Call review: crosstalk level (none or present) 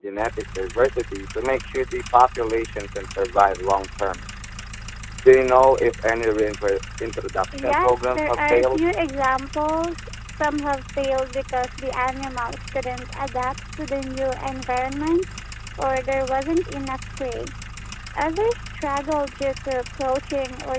present